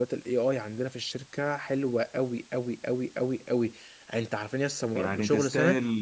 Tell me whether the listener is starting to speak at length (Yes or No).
Yes